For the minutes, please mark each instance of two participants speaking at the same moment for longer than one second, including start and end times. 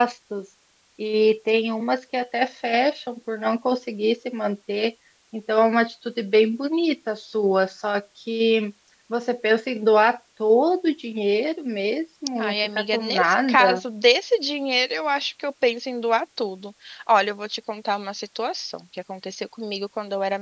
12.4-13.8

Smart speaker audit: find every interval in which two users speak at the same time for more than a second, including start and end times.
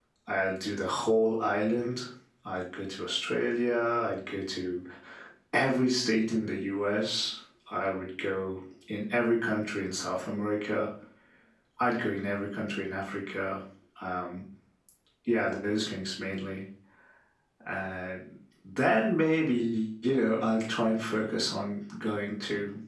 none

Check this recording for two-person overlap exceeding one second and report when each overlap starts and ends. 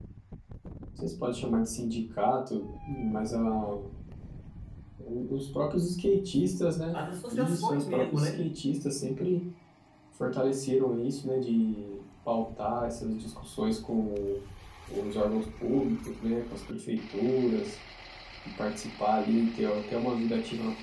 6.9-8.5

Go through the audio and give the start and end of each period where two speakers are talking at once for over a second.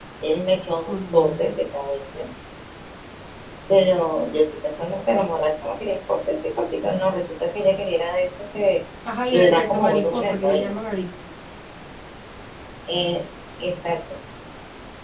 9.3-10.7

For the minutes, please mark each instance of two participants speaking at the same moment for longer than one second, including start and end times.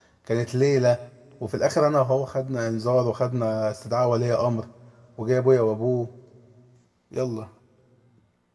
none

